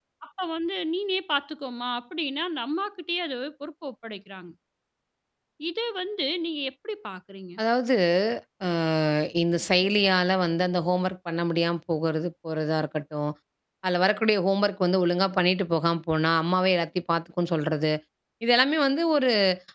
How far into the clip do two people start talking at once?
none

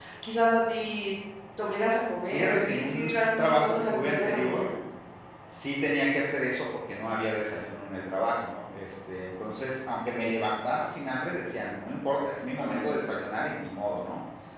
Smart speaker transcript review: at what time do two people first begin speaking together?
2.3 s

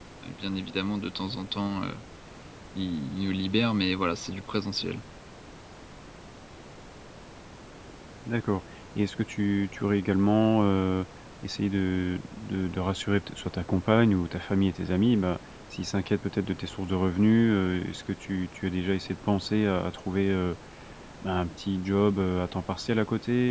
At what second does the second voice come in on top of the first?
none

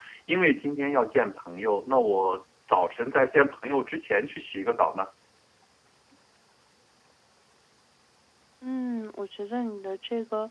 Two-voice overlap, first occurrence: none

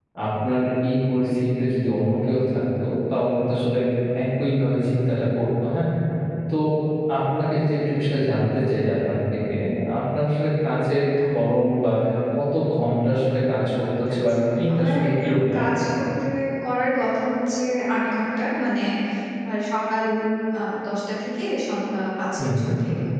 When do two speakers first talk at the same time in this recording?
14.2 s

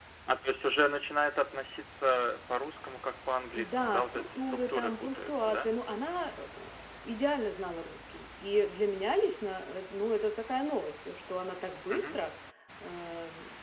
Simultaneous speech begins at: 3.5 s

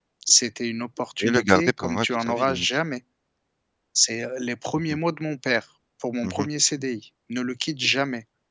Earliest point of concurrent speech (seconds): 1.2 s

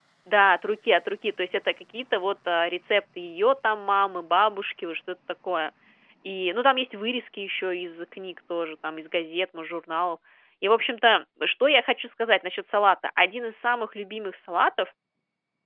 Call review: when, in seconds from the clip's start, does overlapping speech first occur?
none

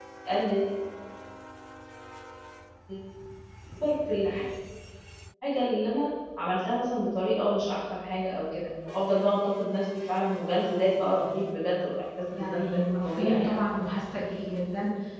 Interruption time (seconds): 12.3 s

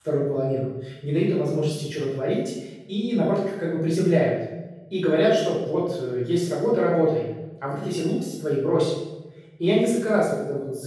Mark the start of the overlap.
none

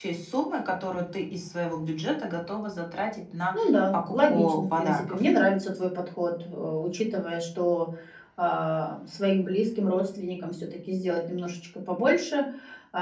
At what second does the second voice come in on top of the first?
3.5 s

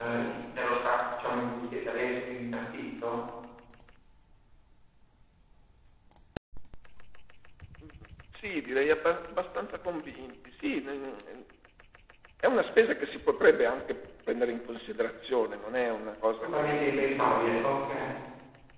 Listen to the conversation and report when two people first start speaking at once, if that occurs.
16.4 s

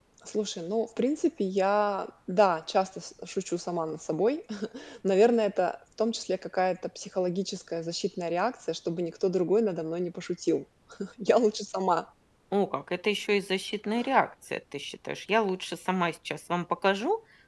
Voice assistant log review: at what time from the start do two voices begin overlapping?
none

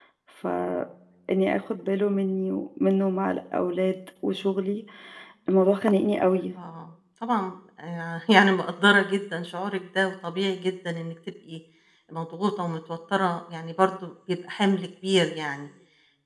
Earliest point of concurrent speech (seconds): none

